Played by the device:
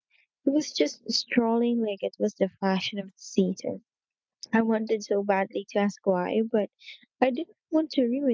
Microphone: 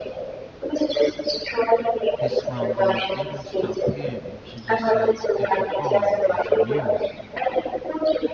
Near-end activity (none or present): present